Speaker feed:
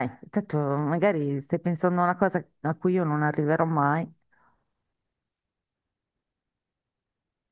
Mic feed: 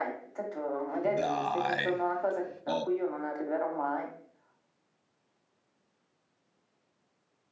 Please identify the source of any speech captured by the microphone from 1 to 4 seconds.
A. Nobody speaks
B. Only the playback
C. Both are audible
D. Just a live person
C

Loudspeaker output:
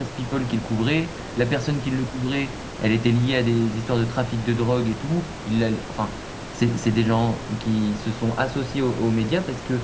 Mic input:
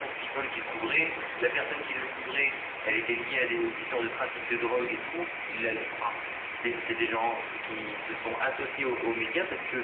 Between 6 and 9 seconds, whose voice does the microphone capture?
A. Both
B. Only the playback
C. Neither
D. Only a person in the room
B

